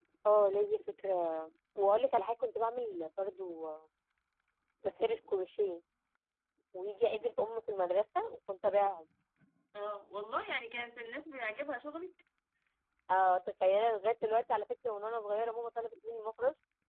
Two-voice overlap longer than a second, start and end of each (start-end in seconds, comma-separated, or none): none